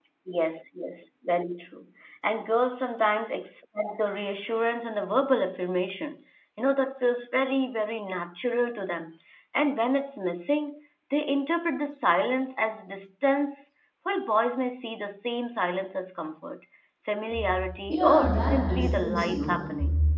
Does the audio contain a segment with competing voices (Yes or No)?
Yes